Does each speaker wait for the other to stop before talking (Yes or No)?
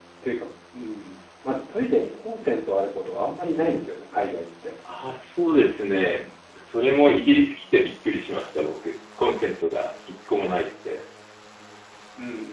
Yes